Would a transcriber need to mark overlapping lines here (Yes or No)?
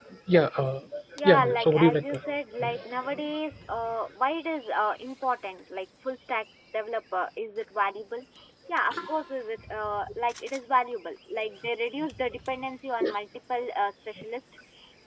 Yes